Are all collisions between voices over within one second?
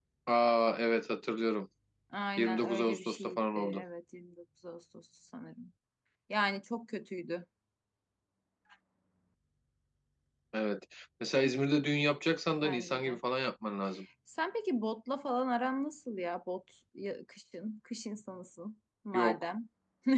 No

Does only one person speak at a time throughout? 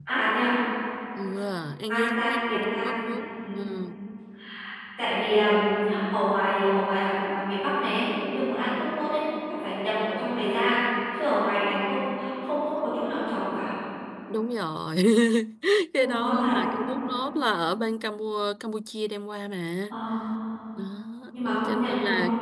No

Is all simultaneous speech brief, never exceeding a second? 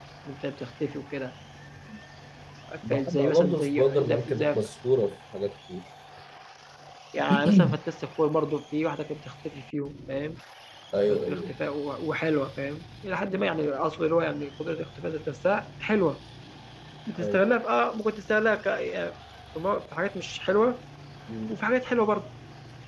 No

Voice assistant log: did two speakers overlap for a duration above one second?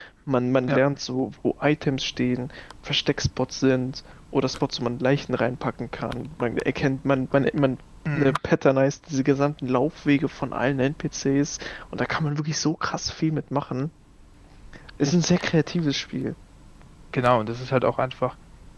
No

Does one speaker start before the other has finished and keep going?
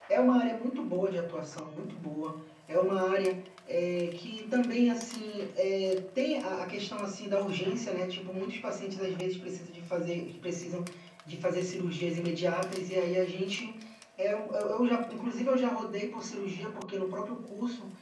No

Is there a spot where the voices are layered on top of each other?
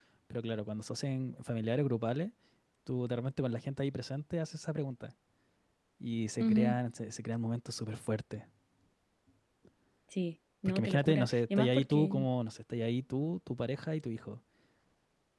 Yes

